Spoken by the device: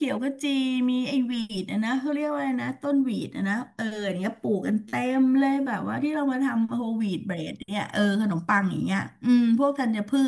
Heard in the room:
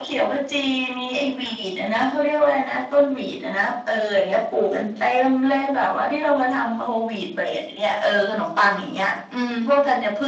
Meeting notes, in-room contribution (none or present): none